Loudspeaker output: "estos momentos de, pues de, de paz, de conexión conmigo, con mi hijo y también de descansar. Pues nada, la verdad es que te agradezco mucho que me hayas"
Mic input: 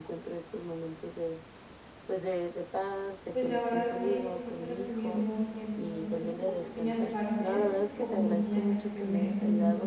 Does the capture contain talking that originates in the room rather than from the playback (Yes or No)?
Yes